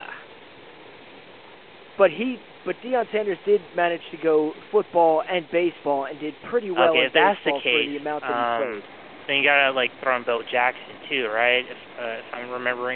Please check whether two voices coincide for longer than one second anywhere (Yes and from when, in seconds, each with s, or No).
Yes, from 6.8 s